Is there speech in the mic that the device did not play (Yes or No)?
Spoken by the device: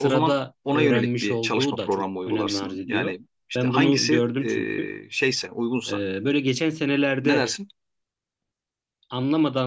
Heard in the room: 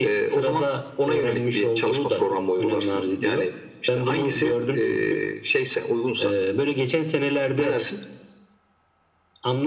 No